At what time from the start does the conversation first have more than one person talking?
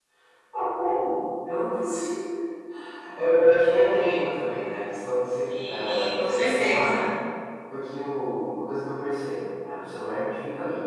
5.5 s

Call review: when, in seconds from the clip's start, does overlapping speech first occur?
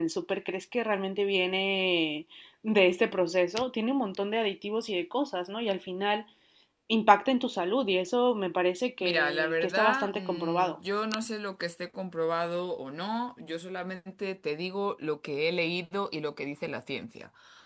9.0 s

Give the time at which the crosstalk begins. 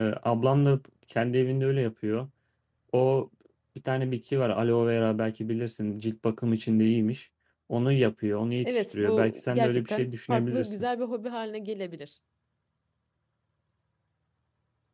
8.6 s

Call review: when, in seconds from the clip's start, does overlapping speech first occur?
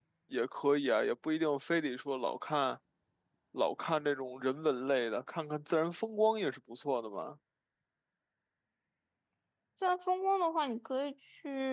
none

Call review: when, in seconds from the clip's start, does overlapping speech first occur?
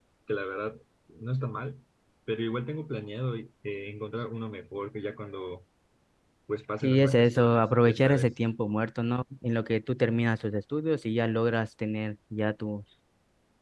6.8 s

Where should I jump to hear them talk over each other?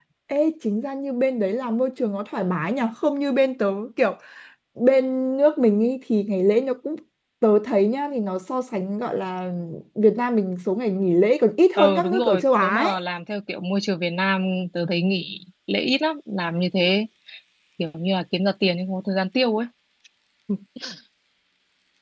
11.8 s

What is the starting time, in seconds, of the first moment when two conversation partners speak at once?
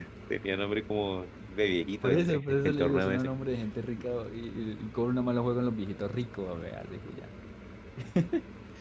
2.0 s

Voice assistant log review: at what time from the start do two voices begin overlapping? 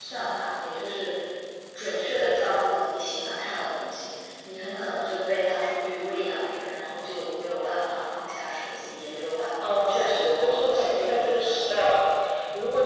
9.6 s

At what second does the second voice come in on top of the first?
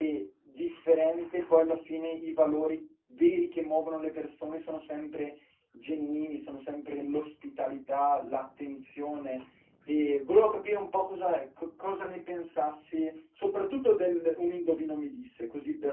none

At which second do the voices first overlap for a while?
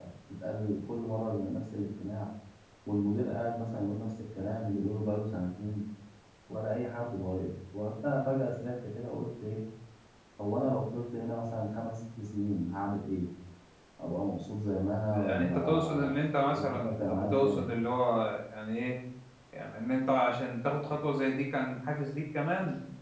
15.1 s

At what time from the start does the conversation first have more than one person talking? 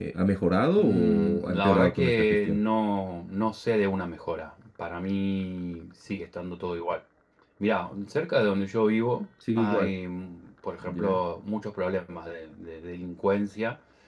0.8 s

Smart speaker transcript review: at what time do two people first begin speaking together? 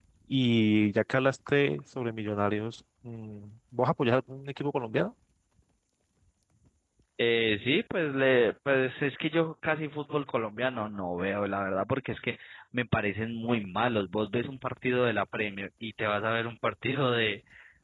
none

